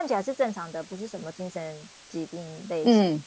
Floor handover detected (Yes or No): Yes